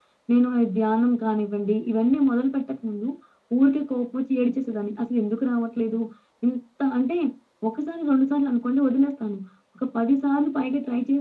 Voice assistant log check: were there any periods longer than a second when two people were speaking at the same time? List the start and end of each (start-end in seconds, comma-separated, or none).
none